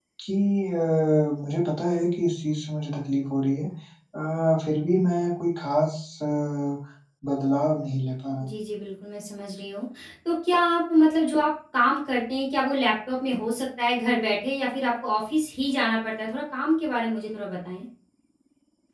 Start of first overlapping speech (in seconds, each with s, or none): none